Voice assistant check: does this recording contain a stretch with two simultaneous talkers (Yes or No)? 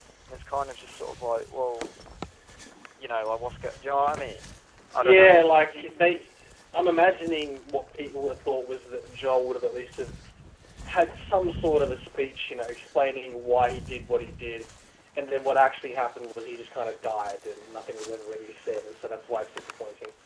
Yes